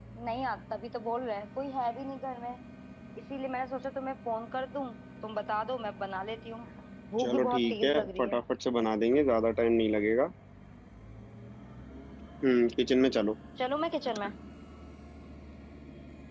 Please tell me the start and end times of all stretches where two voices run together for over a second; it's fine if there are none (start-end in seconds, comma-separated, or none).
7.2-8.4